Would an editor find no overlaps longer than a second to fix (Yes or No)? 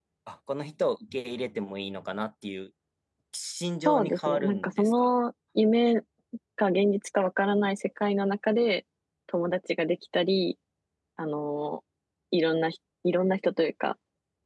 No